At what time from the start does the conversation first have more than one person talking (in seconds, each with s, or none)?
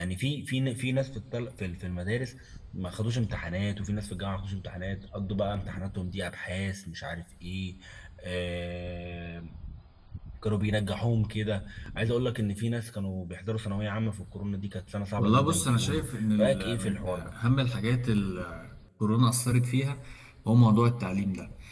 15.2 s